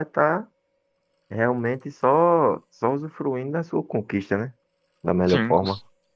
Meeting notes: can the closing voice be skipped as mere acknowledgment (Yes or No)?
No